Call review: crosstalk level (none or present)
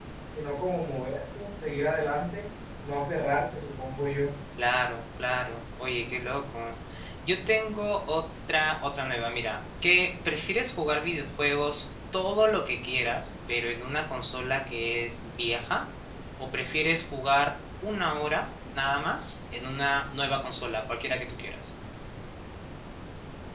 none